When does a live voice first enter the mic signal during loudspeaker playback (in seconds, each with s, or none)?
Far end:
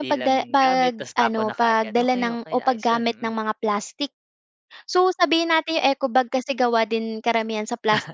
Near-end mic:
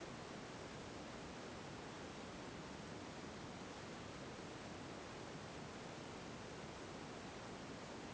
none